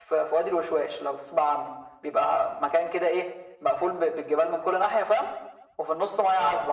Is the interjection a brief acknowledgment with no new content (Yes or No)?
Yes